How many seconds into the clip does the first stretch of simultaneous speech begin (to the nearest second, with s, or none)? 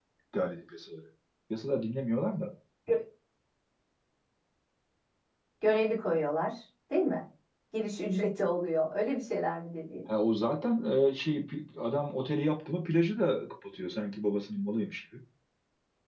none